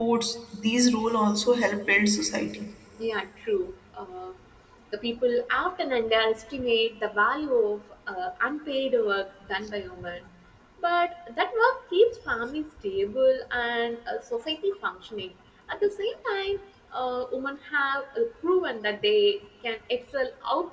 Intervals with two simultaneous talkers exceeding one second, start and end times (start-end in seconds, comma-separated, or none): none